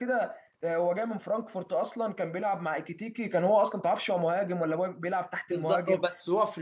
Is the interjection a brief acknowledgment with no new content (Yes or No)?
No